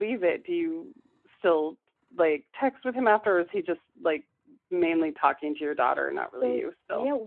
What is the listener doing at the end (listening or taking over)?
taking over